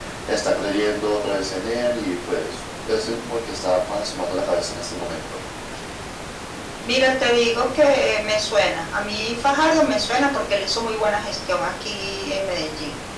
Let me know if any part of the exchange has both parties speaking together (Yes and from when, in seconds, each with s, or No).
No